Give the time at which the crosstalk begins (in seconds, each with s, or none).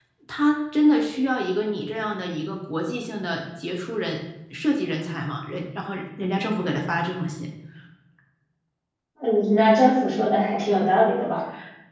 none